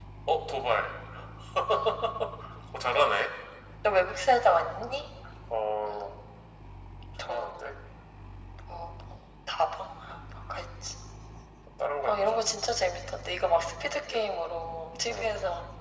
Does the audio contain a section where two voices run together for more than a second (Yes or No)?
No